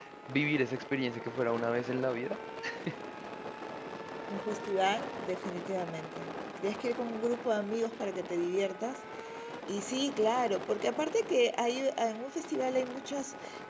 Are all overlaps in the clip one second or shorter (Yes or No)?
Yes